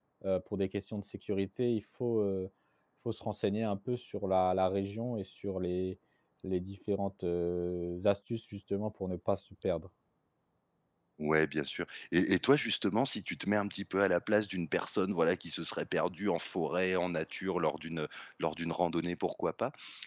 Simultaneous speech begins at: none

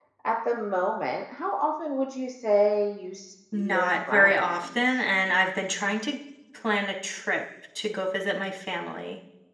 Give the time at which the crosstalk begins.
3.5 s

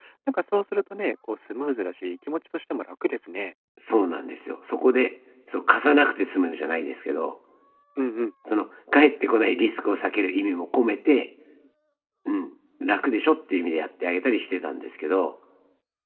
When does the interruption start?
none

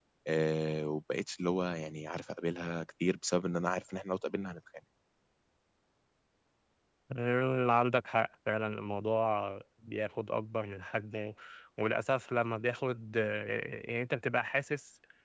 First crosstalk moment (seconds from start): none

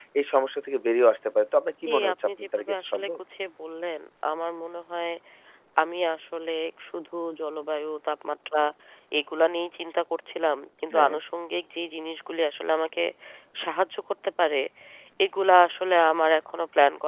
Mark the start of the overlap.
1.9 s

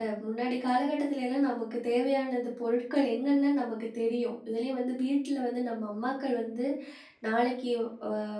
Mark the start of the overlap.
none

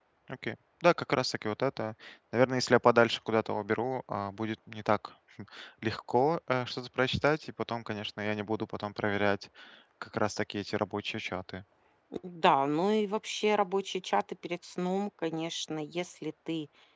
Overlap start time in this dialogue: none

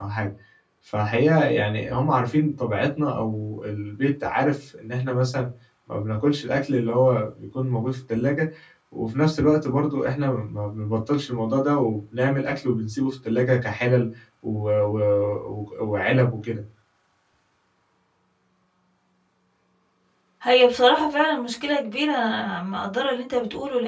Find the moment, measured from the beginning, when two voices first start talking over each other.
none

